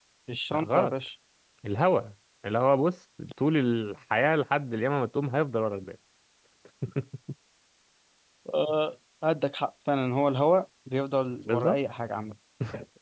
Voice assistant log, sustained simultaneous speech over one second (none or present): none